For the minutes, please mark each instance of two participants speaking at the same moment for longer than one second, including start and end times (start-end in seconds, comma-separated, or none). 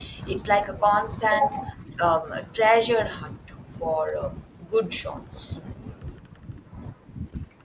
none